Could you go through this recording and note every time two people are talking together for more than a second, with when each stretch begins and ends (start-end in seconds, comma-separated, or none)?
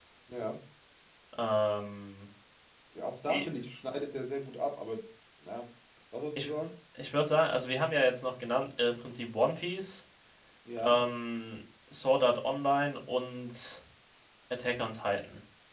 none